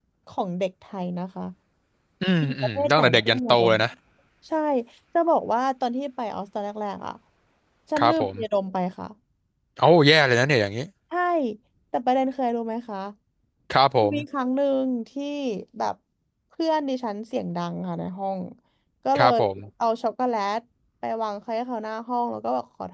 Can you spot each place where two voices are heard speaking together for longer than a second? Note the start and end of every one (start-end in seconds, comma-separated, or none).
2.4-3.7